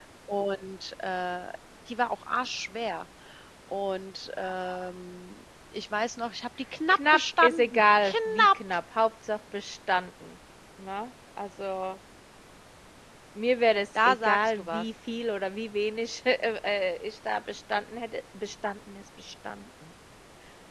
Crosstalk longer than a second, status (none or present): present